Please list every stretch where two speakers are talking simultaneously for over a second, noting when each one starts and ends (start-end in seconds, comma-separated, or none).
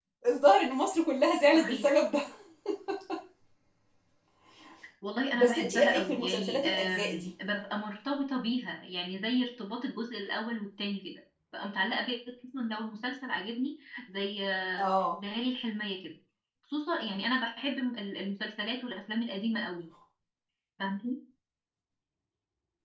5.3-7.3